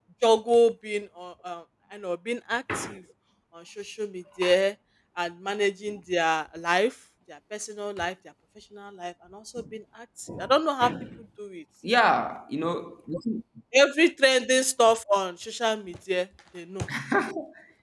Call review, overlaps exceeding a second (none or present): none